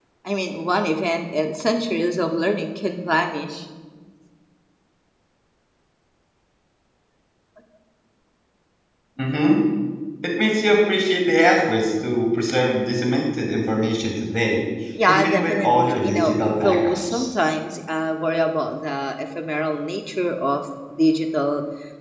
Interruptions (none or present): present